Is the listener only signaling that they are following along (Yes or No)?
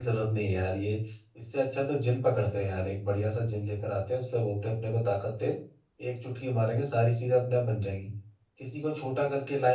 Yes